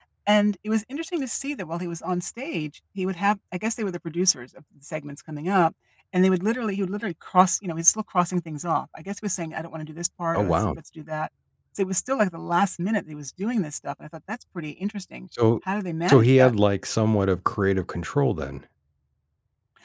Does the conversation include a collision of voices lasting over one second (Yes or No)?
No